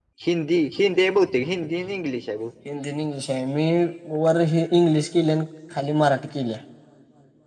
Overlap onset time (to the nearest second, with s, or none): none